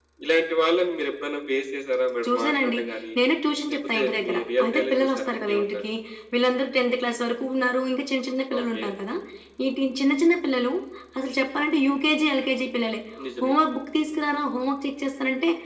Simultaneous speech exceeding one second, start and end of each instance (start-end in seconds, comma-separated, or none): 4.0-5.8